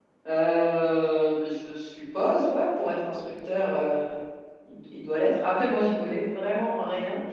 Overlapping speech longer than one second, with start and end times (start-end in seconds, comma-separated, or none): none